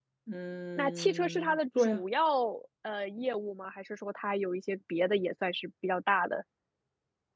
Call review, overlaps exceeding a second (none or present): present